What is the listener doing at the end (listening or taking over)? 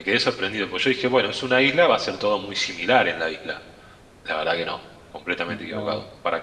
listening